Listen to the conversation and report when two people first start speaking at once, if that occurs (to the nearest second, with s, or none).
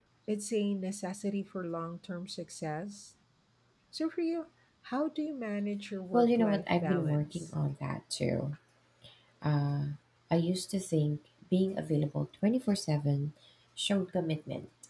6 s